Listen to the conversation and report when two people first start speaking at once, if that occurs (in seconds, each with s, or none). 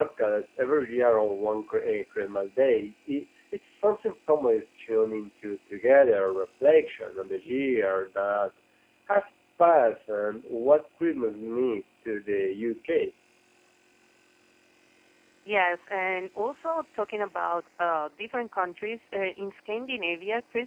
none